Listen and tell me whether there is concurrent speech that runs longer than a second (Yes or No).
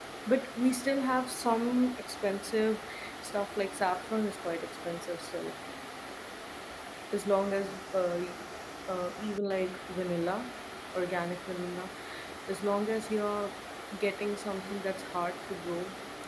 No